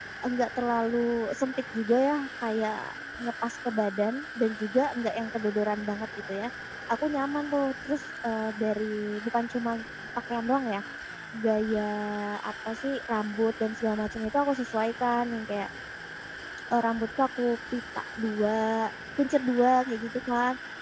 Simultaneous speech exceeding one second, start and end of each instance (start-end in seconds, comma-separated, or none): none